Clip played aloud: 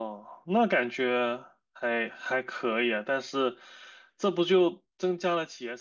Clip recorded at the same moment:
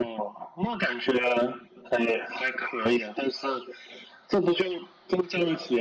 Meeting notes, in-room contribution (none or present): none